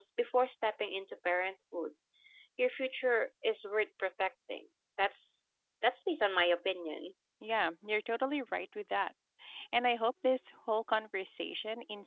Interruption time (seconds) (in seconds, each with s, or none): none